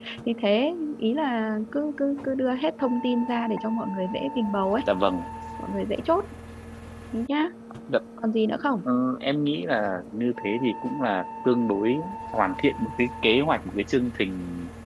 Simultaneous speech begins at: none

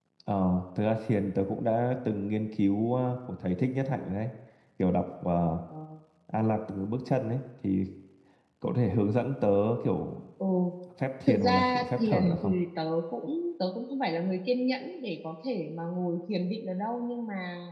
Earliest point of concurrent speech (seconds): 11.3 s

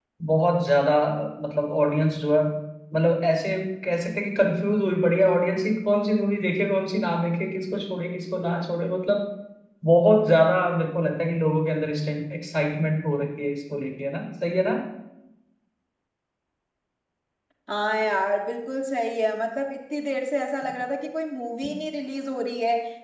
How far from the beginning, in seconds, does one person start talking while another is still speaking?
none

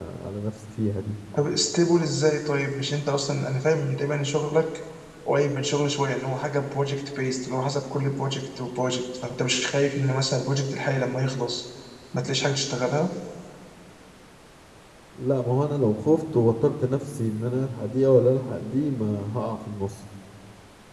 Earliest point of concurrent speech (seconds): none

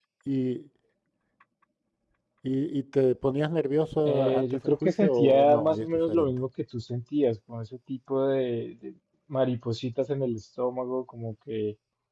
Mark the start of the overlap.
4.0 s

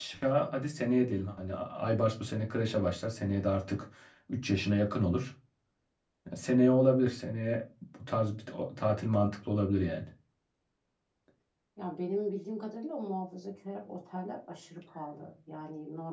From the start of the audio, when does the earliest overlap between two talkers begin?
none

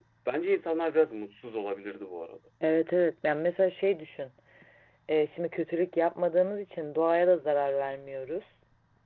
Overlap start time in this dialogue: none

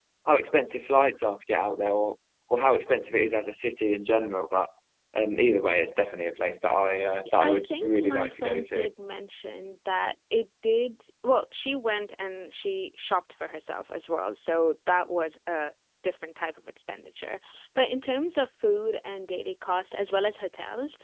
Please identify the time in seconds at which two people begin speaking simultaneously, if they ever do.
7.4 s

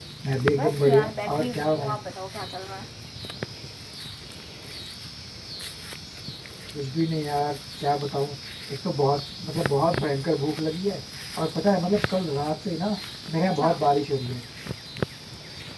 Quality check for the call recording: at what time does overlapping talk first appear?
0.5 s

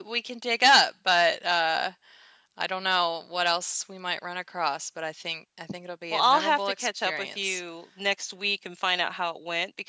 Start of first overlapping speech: 6.1 s

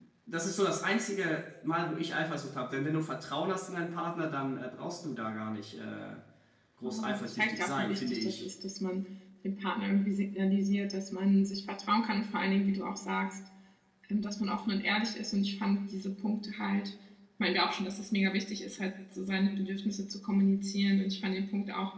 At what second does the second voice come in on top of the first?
6.8 s

